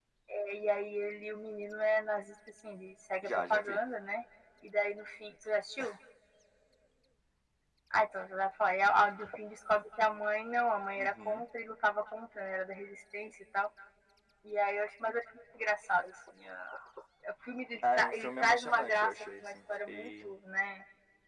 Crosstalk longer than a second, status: present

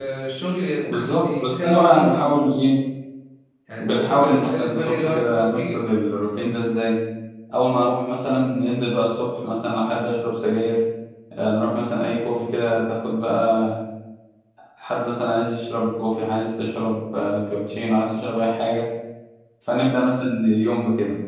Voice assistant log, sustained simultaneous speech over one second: present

